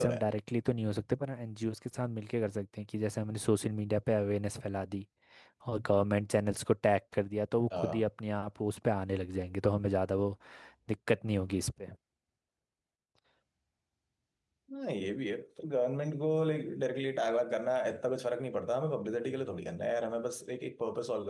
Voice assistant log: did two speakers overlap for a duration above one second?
No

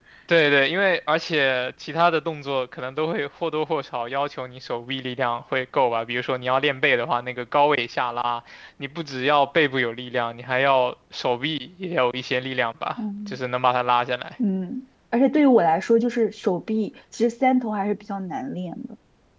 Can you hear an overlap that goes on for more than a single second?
No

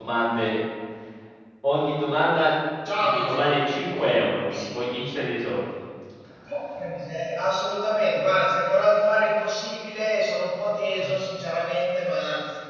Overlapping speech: Yes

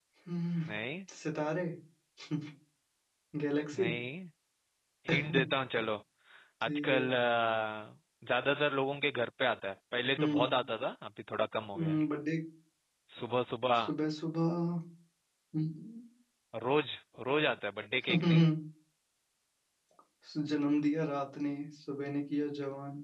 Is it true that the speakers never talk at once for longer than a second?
Yes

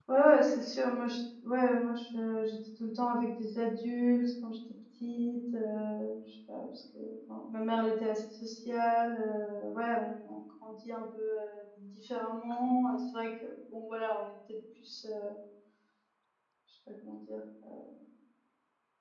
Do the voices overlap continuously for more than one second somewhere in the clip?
No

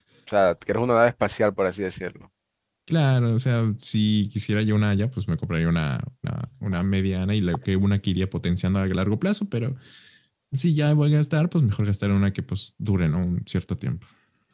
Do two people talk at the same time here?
No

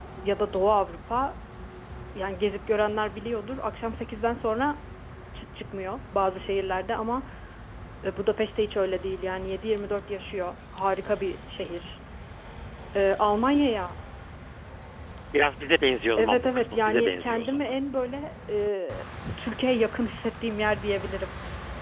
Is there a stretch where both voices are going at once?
Yes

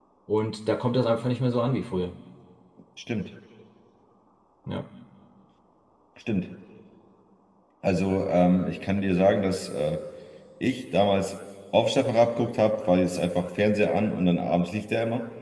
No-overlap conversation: Yes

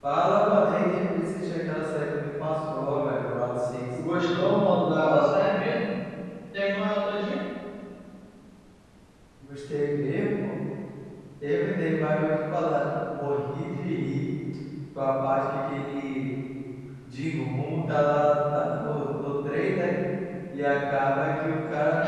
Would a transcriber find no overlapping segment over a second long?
No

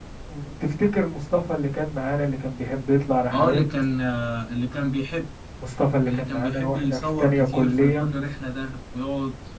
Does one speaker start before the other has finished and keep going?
Yes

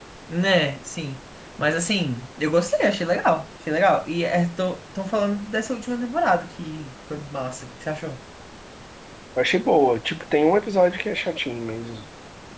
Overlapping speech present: No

